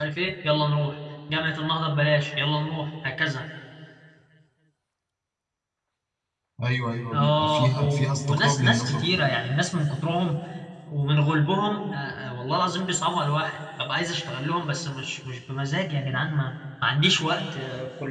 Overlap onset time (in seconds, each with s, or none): 7.1 s